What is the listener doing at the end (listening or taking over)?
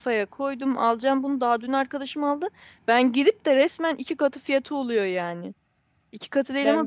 listening